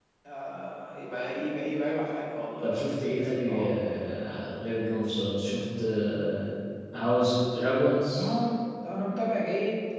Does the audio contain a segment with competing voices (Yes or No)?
Yes